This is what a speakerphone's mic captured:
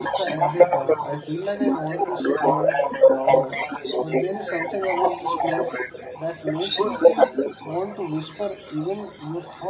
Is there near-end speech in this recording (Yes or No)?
Yes